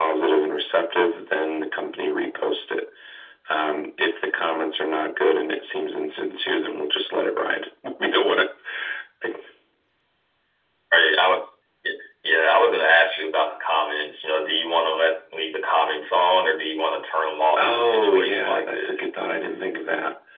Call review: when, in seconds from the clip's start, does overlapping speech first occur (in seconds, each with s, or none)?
17.6 s